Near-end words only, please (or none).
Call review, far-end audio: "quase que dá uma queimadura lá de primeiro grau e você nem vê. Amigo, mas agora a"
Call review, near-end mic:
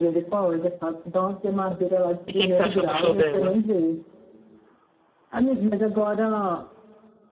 E o que é que você achou do show dela?